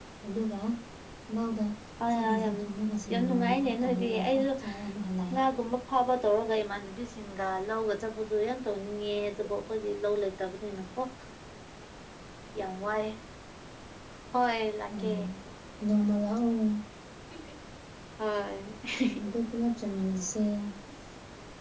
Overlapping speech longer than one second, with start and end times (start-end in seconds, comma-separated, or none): 3.1-4.4